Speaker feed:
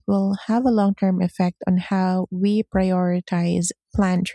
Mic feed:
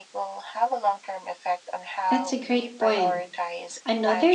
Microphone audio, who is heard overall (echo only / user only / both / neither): both